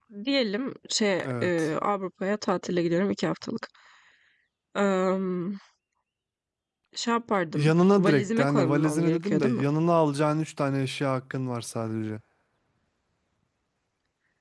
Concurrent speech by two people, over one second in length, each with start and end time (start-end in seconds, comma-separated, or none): 7.5-9.6